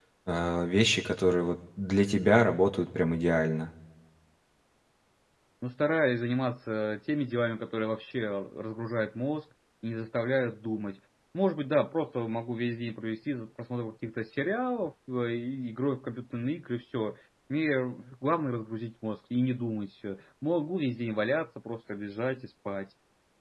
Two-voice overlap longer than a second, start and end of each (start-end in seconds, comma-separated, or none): none